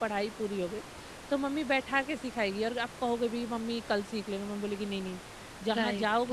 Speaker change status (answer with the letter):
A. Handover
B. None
A